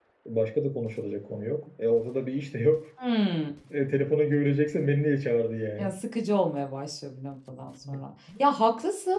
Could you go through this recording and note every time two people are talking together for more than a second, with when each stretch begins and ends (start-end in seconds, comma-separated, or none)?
none